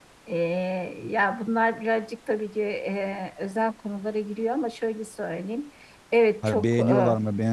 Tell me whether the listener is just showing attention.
No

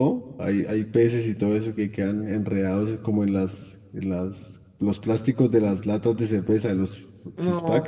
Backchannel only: No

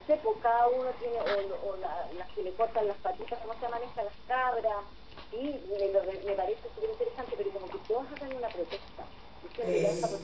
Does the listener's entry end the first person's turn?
No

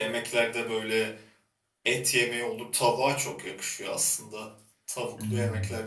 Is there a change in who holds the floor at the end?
No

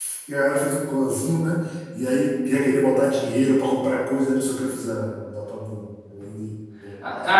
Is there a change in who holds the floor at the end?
Yes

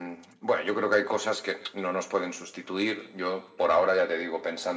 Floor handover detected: No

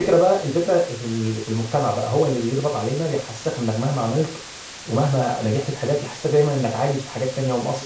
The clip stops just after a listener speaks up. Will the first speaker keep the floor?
No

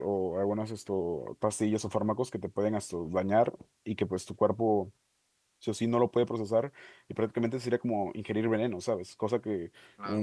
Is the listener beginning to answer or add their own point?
No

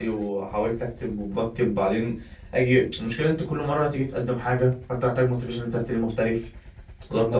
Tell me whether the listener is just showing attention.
No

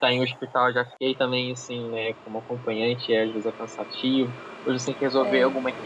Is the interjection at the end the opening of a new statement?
No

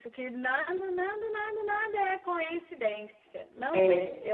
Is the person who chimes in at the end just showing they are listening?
Yes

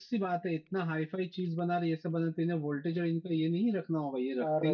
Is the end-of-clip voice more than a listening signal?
No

